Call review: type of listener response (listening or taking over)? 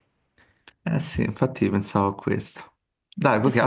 taking over